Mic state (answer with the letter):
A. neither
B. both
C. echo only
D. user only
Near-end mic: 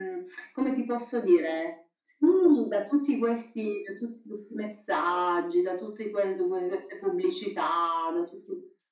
C